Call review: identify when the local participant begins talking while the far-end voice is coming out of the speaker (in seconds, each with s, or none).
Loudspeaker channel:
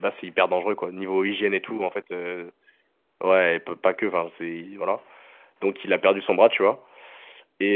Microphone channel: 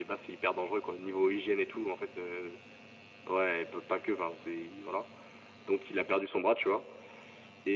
none